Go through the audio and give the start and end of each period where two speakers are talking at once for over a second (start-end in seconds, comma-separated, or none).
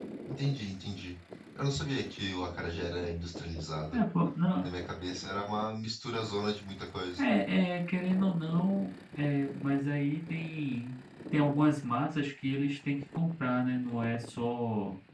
none